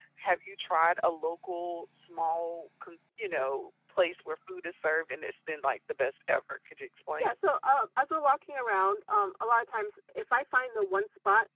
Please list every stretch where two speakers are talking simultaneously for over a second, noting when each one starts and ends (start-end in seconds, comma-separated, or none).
none